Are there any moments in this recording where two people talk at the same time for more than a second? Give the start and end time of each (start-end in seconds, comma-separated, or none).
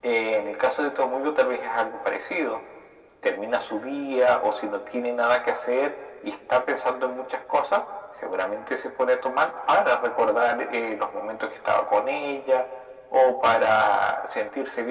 none